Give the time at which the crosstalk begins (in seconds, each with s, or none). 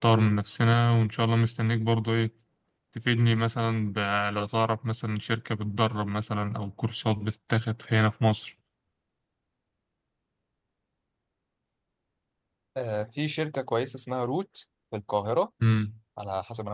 none